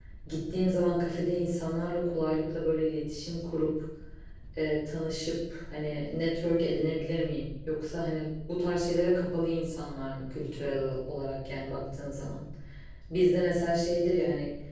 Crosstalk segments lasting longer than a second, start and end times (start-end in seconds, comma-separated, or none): none